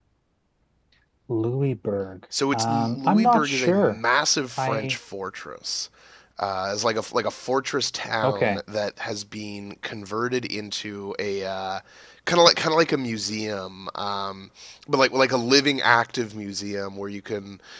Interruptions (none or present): present